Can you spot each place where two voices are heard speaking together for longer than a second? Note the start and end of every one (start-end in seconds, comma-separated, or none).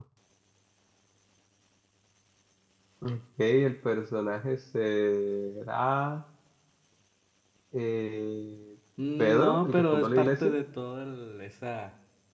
9.2-10.5